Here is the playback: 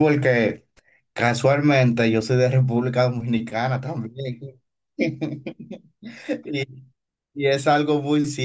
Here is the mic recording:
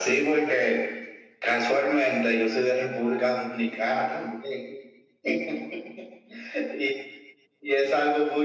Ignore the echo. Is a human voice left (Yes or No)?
No